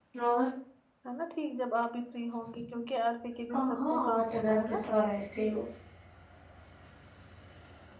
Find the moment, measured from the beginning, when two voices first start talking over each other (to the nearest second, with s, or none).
3 s